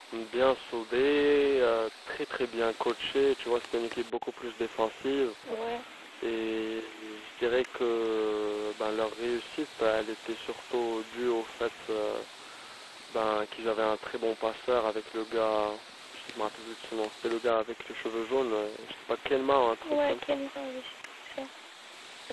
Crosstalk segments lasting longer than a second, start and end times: none

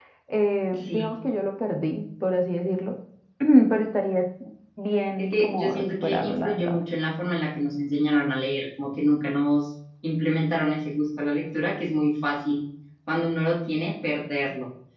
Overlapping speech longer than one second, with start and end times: 5.2-6.8

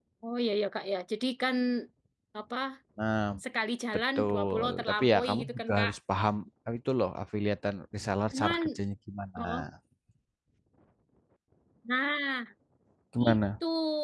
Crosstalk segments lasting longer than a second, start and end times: 4.2-5.9

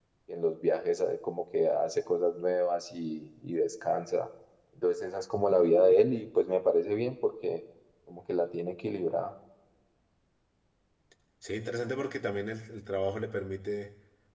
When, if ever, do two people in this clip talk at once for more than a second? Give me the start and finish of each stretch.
none

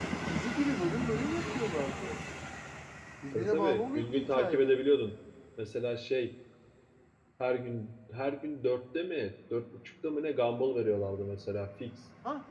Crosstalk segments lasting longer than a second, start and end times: 3.3-5.0

